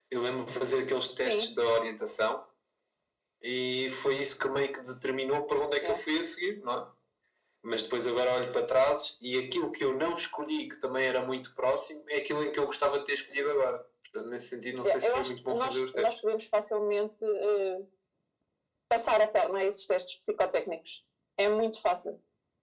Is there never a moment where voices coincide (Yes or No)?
No